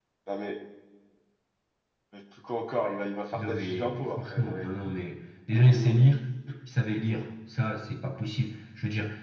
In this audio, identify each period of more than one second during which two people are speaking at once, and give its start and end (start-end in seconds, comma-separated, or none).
3.3-4.7